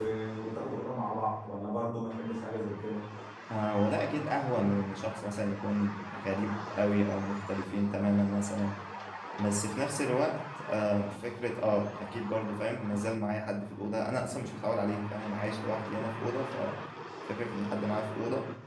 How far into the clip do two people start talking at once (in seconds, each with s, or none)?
none